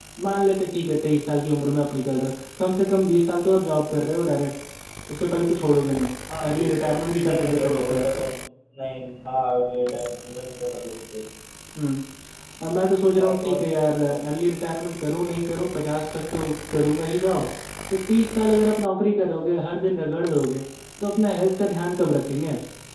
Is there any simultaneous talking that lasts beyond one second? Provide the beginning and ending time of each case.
6.4-8.0

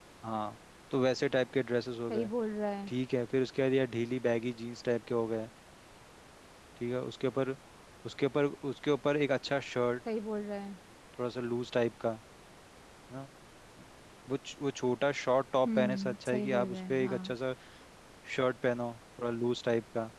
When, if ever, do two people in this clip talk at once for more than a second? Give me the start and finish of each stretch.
15.7-17.3

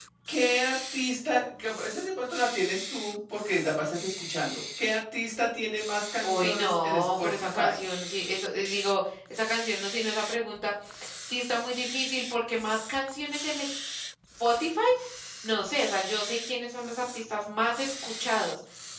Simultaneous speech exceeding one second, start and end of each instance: 6.2-7.7

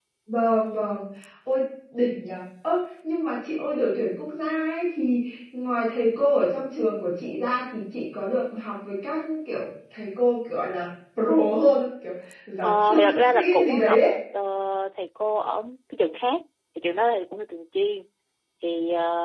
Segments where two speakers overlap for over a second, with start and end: 12.6-14.0

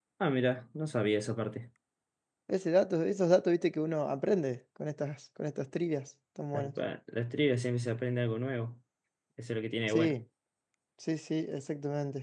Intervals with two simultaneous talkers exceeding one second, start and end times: none

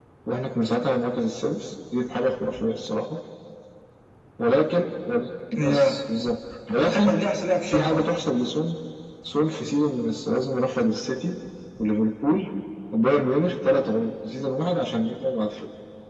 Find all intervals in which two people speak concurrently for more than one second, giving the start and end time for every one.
none

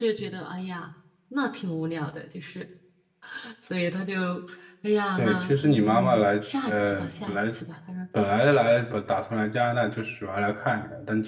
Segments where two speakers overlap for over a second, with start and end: 5.2-7.4

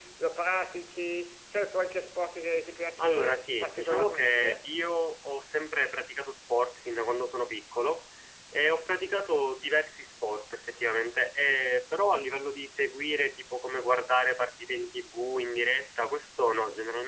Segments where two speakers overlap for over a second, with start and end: 3.0-4.7

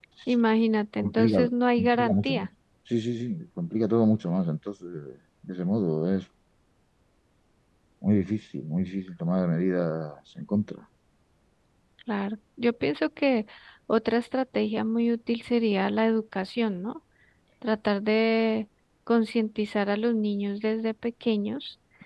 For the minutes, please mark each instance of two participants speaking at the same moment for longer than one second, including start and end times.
1.0-2.5

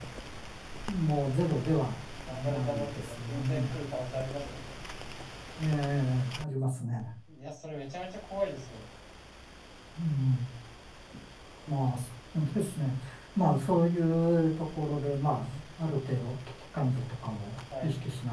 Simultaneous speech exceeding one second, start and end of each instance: 2.2-3.7

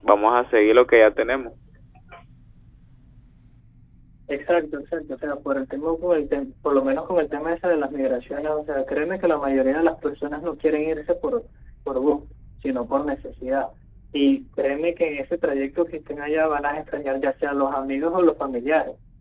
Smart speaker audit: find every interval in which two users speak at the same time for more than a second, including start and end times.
none

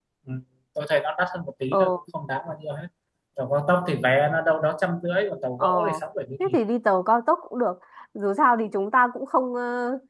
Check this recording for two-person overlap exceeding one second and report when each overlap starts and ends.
none

